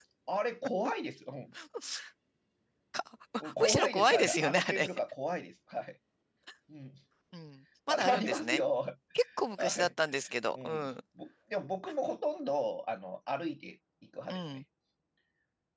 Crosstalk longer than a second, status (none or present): present